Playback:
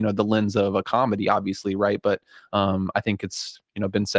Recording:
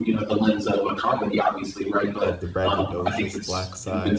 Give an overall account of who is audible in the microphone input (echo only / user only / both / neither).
both